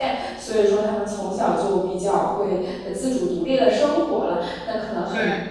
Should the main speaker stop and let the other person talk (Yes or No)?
No